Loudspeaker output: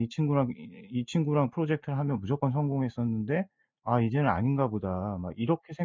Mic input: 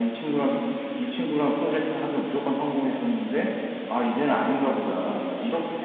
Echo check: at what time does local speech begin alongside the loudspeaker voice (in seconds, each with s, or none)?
none